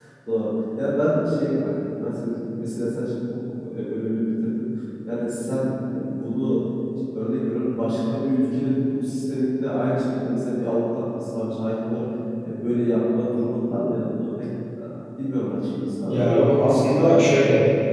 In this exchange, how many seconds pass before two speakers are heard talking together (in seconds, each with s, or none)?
16.1 s